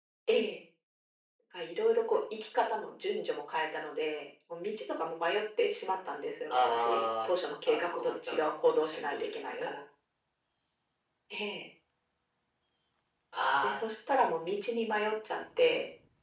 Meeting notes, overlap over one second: present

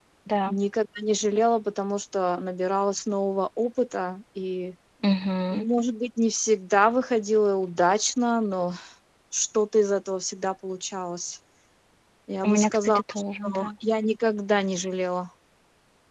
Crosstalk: present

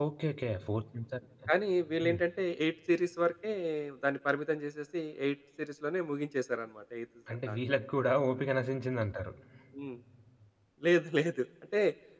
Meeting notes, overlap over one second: none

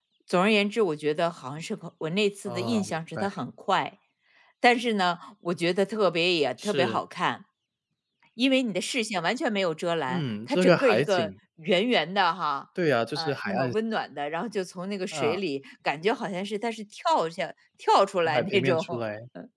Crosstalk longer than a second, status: present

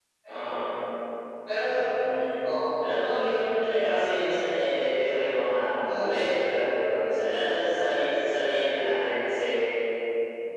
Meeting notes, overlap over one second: none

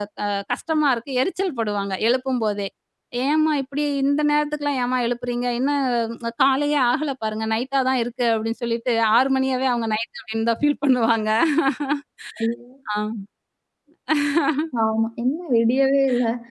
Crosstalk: none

